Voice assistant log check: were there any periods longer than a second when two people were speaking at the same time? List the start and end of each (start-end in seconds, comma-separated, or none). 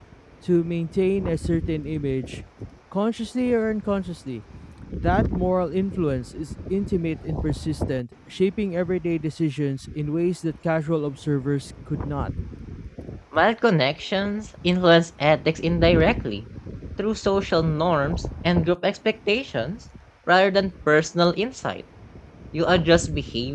none